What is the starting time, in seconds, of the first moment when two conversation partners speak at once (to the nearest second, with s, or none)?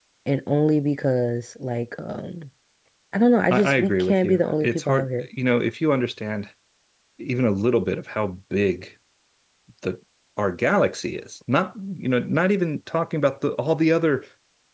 3 s